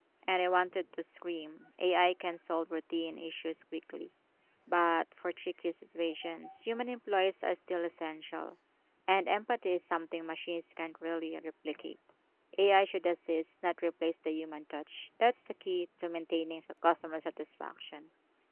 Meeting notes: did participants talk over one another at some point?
No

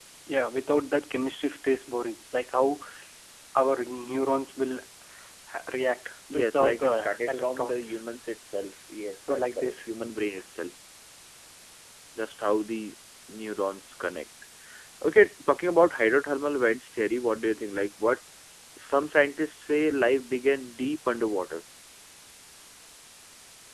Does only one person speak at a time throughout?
No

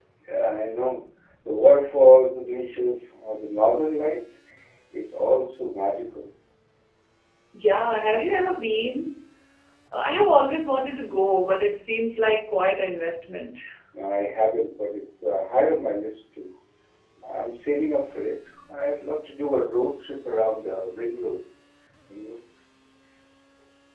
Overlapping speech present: No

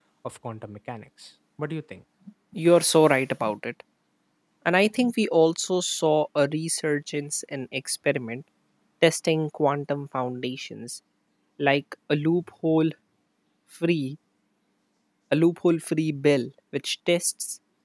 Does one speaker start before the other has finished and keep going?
No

